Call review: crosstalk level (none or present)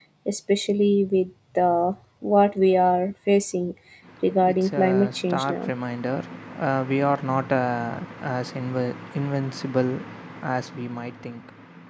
present